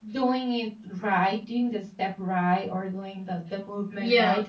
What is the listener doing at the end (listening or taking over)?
listening